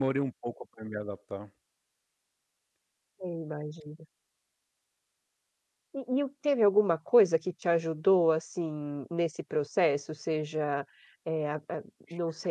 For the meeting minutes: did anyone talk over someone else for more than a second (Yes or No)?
No